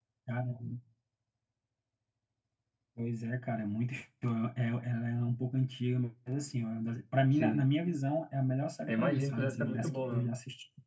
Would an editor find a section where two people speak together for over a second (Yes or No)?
Yes